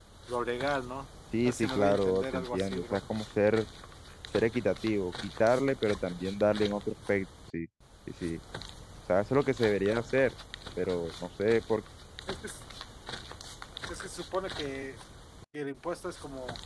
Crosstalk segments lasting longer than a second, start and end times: 1.4-3.0

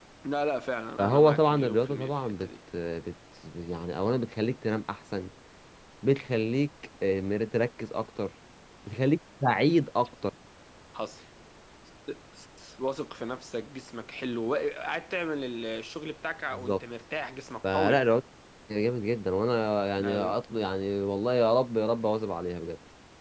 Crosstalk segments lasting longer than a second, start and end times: 1.0-2.5

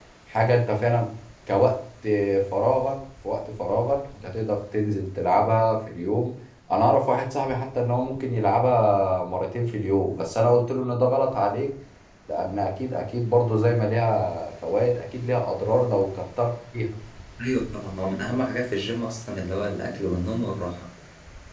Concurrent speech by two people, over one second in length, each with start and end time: none

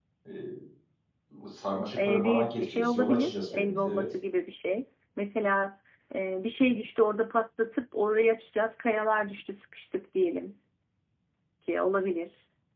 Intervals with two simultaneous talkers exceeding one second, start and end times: 2.0-4.1

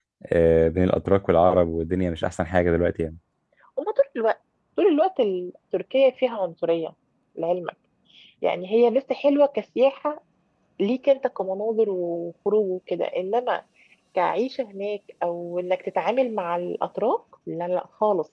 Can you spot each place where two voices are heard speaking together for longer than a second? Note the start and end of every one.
none

